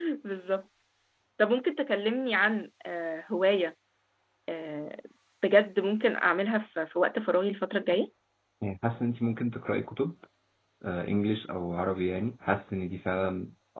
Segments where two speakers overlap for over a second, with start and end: none

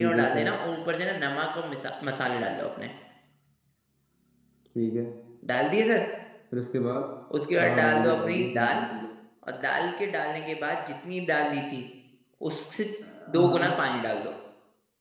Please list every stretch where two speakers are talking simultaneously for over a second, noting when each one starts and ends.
7.6-8.8

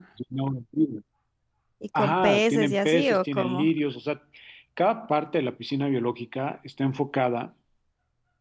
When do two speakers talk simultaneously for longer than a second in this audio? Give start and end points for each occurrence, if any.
1.9-3.7

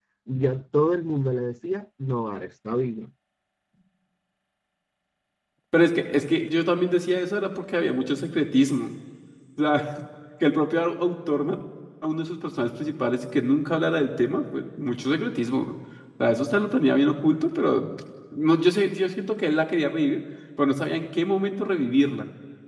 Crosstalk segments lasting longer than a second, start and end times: none

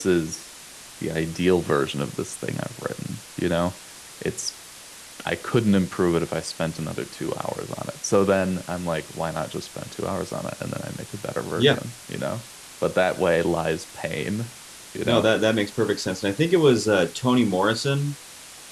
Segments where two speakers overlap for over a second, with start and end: none

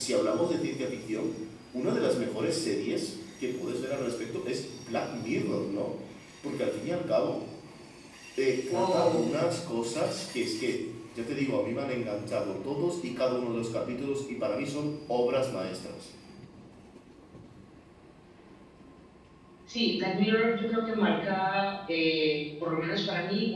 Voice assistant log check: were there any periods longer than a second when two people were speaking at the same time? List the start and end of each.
none

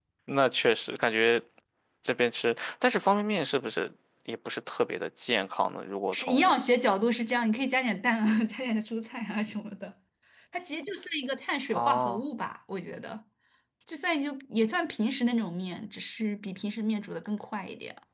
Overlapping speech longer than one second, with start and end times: none

